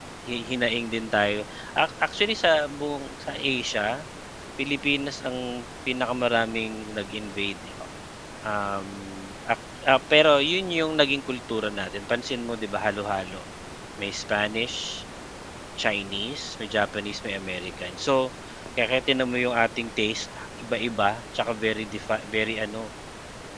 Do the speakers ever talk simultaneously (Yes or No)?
No